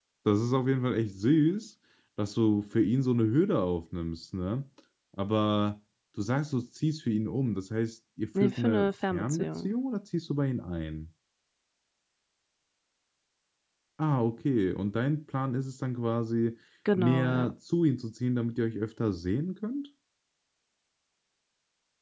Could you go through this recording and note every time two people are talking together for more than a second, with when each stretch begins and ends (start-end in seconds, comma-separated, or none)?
8.4-9.7